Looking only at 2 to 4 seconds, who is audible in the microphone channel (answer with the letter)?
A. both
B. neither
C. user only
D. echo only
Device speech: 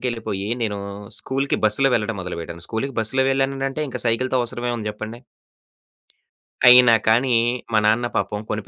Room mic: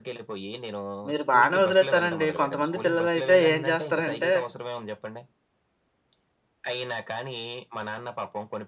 A